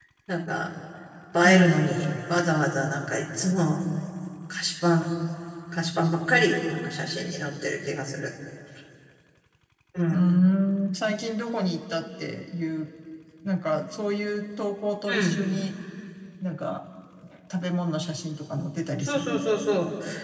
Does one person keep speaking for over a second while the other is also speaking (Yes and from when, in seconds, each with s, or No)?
No